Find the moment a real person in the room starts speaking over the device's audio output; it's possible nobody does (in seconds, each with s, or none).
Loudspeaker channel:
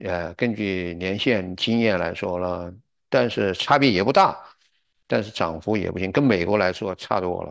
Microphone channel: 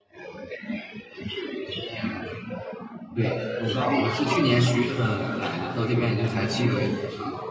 3.1 s